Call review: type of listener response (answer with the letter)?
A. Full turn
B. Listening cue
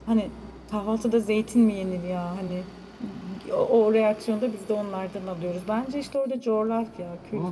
A